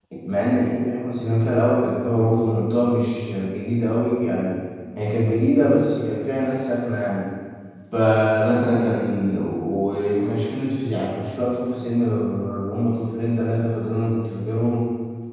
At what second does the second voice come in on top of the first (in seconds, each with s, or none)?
none